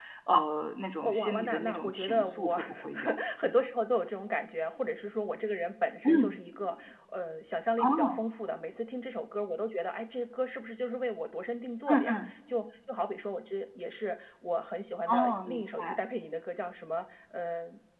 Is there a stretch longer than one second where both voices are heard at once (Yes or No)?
Yes